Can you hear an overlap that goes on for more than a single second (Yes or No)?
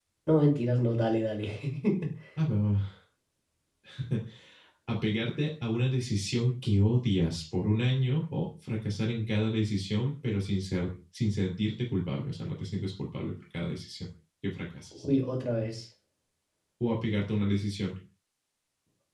No